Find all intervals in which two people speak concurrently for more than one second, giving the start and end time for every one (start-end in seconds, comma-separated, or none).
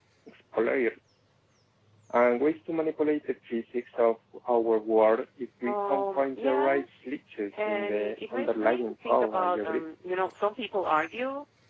5.6-6.8, 7.6-9.8